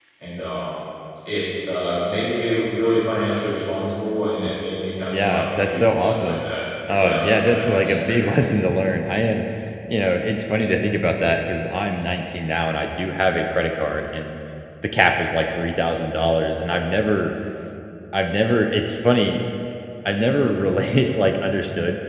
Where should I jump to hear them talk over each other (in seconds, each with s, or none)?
5.1 s